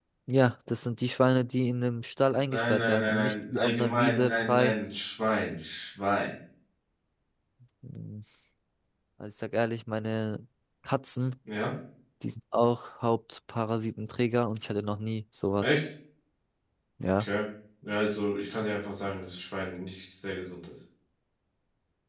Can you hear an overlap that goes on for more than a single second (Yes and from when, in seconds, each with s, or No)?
Yes, from 2.5 s